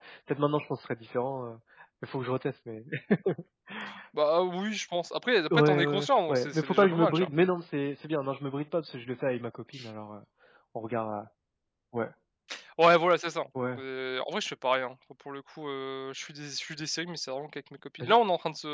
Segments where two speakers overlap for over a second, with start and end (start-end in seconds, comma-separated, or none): 5.5-7.3